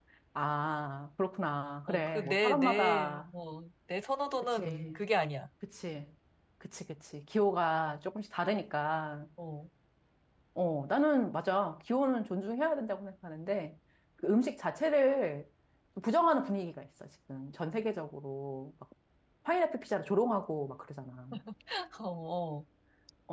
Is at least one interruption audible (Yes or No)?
Yes